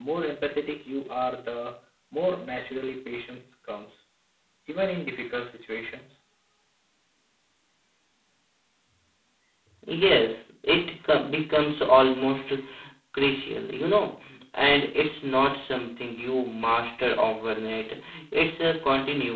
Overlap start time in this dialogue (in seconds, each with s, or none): none